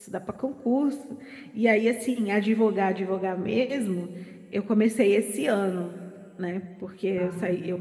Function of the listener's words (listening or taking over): listening